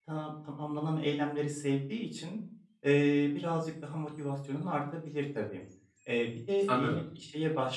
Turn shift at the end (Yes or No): No